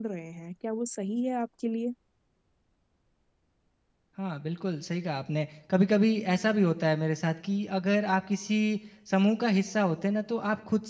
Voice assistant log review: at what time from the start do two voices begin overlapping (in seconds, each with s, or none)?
none